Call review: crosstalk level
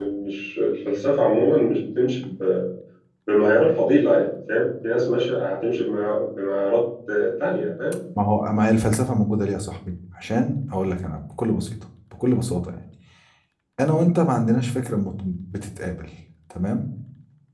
none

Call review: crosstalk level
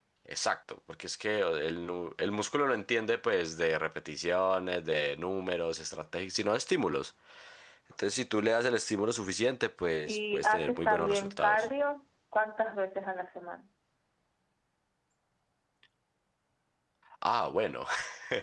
present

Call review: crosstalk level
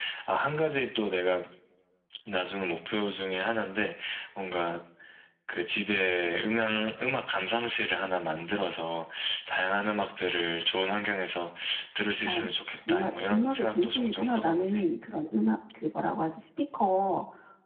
present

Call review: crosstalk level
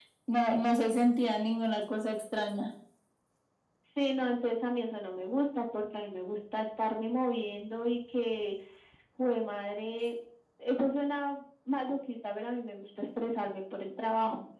none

